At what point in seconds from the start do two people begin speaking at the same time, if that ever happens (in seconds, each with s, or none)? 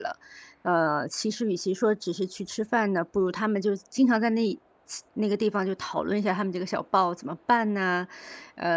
none